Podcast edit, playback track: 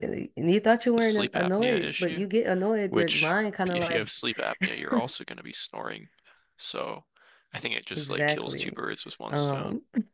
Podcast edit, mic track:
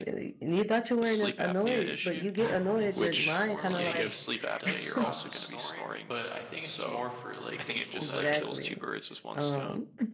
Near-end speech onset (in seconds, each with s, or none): 2.4 s